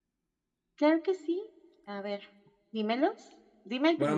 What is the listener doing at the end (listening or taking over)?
taking over